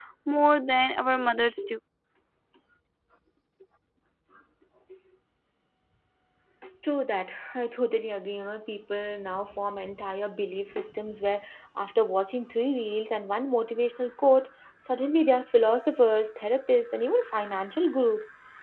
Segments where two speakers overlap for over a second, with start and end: none

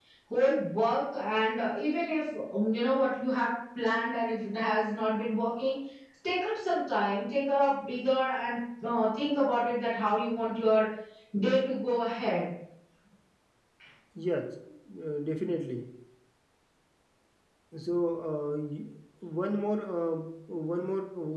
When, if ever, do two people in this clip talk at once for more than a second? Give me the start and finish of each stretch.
none

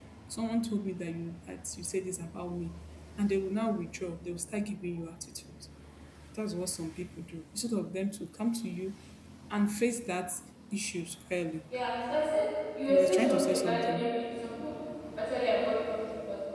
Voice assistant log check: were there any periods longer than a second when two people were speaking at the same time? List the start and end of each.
12.9-14.2

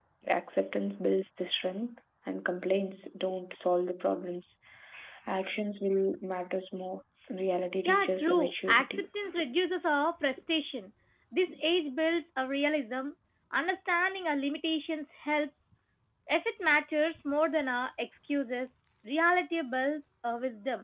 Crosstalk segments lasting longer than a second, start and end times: 7.8-9.1

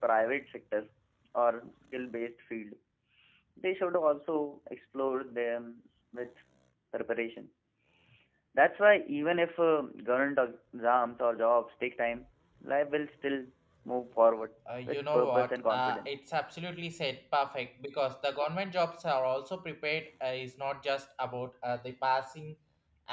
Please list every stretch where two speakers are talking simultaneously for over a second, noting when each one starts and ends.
14.8-16.1

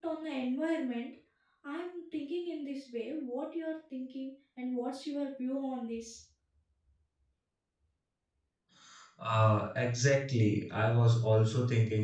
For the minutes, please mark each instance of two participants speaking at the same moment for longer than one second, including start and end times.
none

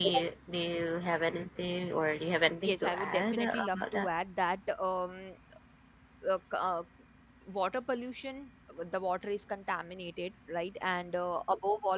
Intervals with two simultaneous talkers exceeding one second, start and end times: 2.6-4.1

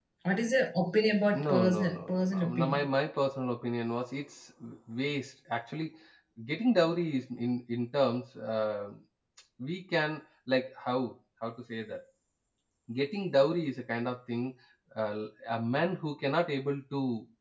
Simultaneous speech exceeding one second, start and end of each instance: 1.4-2.8

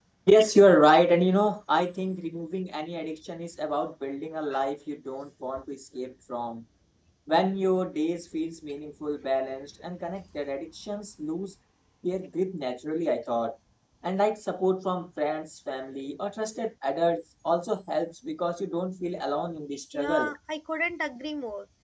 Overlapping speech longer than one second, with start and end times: none

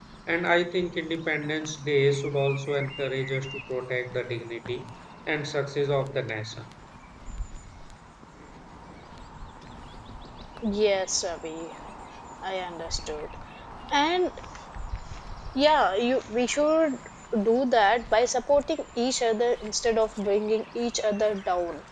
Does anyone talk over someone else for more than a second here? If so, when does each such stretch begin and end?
none

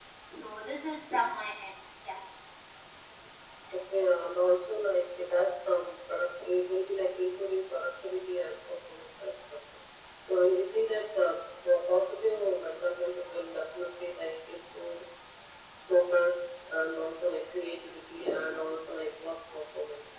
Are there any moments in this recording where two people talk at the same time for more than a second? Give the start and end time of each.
none

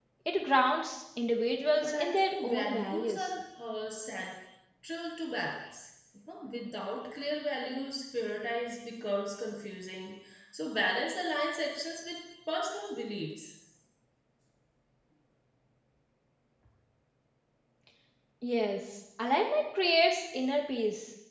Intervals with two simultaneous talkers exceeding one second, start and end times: 1.8-3.3

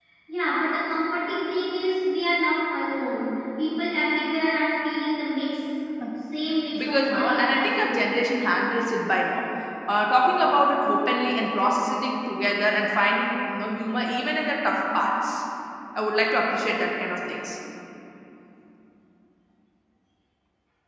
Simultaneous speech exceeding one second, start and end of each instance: 6.8-8.0

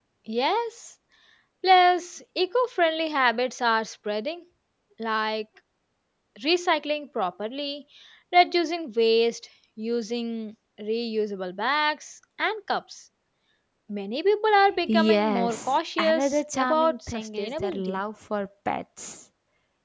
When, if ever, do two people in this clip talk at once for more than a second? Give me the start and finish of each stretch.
14.9-18.0

